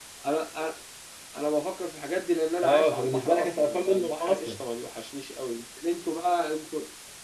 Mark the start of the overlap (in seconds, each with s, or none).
2.6 s